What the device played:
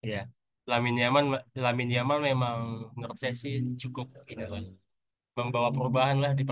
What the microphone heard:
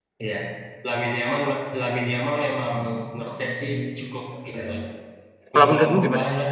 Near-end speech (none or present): present